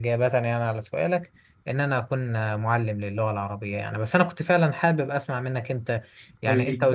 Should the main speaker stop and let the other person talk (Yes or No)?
No